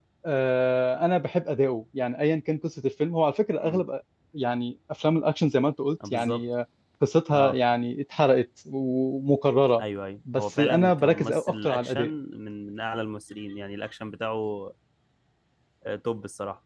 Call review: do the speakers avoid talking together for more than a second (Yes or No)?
No